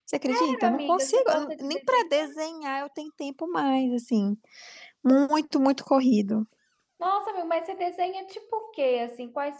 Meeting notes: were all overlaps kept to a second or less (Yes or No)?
No